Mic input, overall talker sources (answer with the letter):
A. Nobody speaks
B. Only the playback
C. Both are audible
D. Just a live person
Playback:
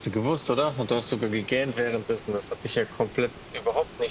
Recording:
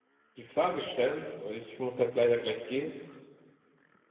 D